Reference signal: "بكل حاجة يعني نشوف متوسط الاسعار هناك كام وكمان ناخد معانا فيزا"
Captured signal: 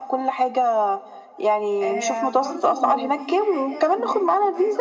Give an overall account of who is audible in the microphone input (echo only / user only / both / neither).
both